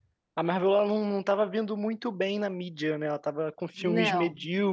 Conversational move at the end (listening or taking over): listening